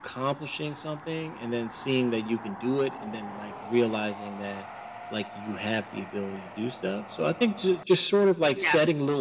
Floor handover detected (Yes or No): No